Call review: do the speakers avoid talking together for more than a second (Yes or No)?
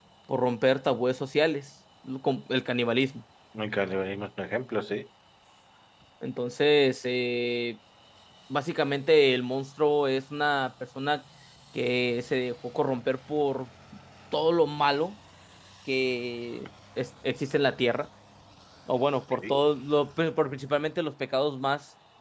Yes